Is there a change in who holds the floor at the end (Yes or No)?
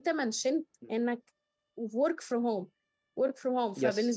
No